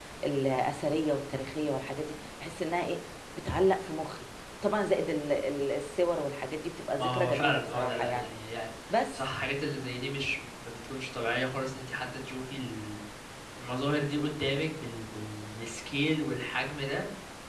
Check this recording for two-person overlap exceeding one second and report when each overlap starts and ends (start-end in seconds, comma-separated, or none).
6.9-8.3